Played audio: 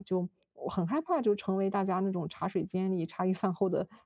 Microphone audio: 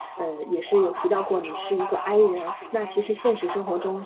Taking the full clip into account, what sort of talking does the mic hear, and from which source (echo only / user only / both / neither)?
both